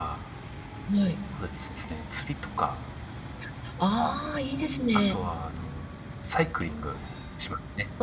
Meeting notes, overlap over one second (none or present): none